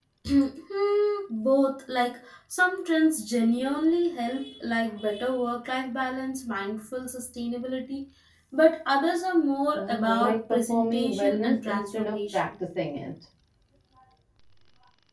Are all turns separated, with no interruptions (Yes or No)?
No